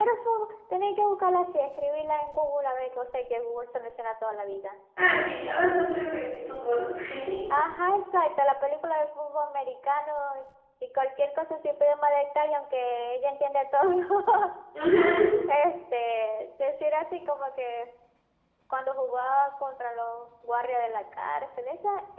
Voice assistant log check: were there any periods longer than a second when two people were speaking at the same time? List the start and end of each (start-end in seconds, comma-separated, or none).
none